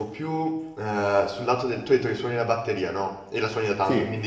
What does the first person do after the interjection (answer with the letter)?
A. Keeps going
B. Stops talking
A